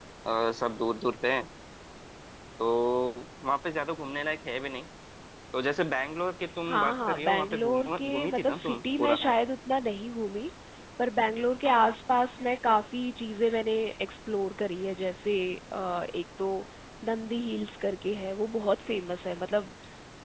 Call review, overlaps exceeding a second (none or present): present